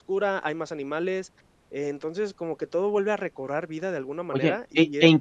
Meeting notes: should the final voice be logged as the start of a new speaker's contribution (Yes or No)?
Yes